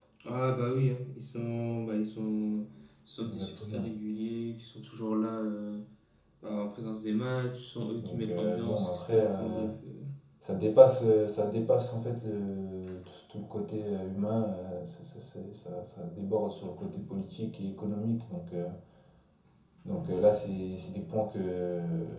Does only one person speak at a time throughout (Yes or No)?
No